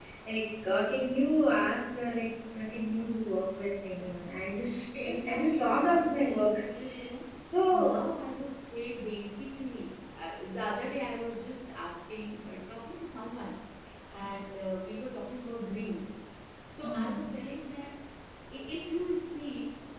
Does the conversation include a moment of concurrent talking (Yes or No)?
Yes